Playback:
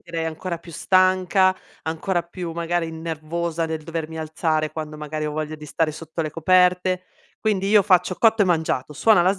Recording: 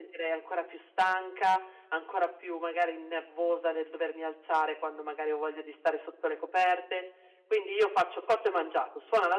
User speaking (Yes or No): No